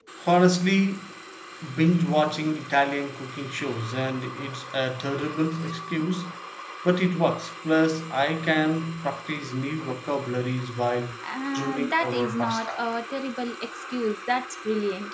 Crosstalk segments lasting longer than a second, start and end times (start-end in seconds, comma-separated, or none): 11.5-12.8